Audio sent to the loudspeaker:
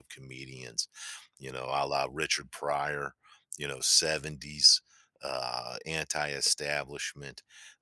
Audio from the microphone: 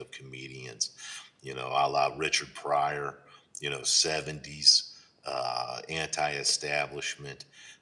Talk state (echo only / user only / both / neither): echo only